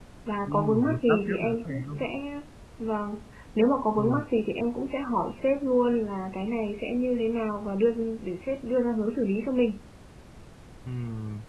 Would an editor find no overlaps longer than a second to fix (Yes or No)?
No